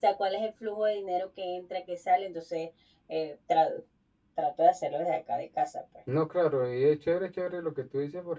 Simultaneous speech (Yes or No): No